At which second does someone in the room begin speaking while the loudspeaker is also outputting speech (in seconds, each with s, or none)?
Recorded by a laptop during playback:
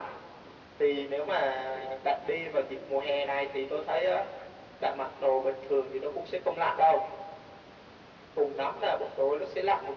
none